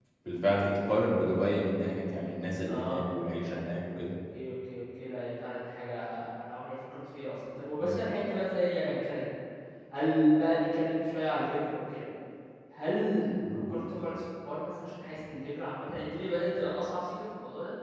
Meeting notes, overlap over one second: none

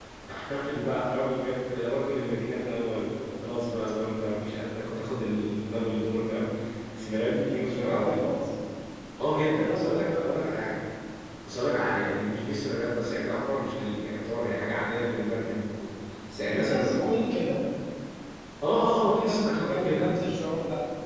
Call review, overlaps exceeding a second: present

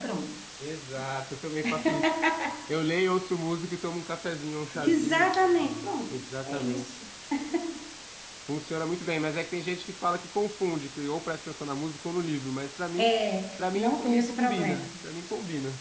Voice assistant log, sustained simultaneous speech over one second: present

